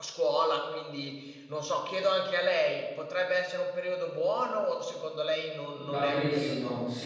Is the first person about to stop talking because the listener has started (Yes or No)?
Yes